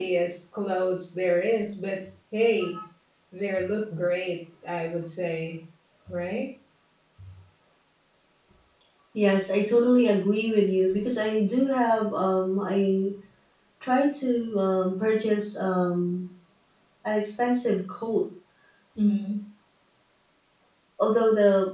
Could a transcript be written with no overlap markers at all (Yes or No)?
Yes